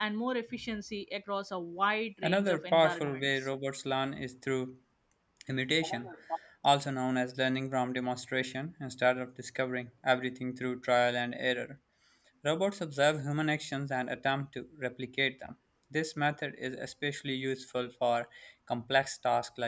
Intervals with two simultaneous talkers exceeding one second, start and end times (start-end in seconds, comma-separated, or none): 2.2-3.5